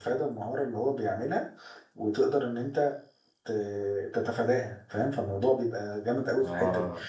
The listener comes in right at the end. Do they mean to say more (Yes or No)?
No